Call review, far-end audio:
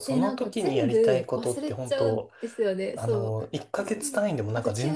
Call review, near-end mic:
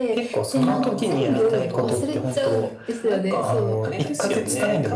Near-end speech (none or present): present